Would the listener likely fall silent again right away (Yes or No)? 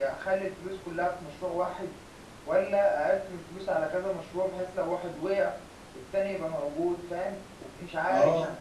No